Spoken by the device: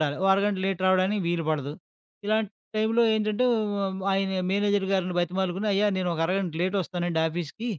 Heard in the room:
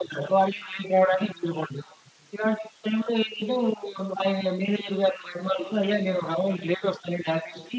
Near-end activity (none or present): none